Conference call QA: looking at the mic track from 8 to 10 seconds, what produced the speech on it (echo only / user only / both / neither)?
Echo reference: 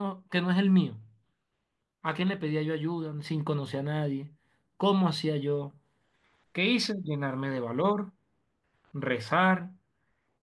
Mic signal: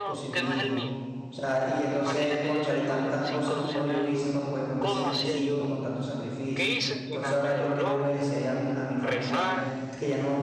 both